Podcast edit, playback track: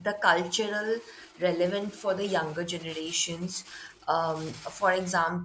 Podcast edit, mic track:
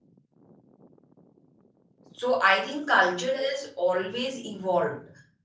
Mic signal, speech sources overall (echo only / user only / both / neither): user only